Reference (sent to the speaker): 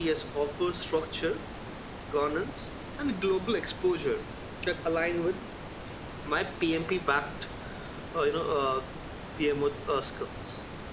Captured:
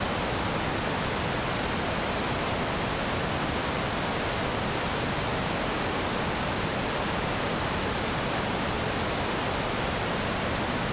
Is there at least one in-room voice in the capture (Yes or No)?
No